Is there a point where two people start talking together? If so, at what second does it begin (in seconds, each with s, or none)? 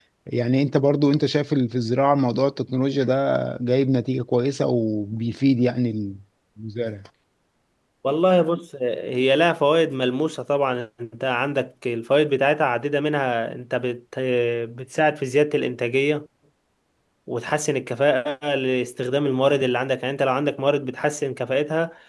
none